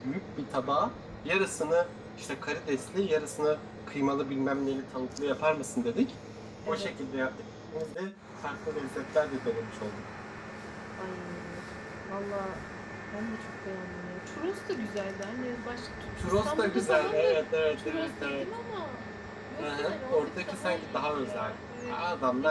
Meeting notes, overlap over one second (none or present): present